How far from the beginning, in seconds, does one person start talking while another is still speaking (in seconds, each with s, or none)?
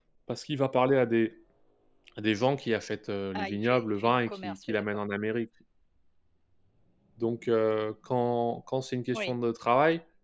3.3 s